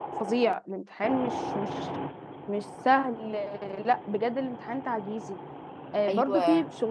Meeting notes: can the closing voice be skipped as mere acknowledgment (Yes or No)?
Yes